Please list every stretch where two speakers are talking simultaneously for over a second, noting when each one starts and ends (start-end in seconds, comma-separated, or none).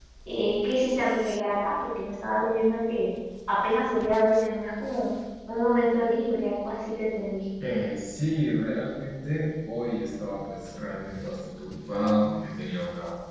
none